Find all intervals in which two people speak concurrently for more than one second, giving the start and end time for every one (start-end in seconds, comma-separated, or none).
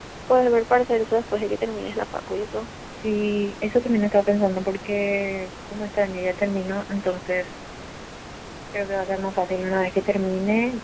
none